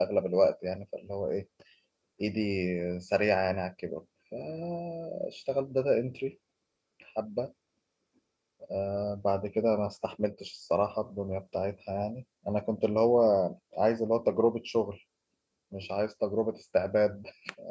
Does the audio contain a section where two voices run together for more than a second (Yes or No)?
No